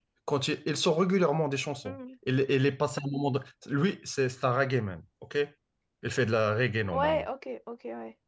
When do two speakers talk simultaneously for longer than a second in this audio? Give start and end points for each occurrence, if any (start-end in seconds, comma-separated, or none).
none